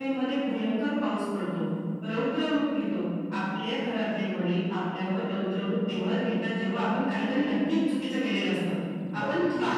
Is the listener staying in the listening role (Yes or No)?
Yes